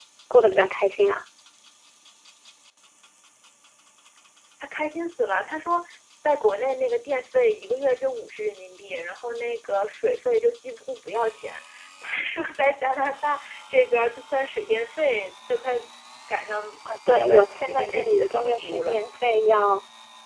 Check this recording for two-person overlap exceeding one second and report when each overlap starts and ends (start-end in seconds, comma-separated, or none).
17.1-19.0